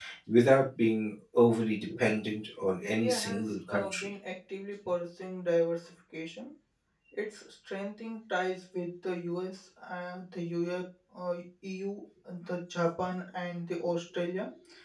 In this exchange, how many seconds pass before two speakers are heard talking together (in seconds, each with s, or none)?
2.8 s